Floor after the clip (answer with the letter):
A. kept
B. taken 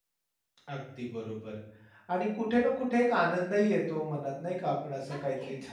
A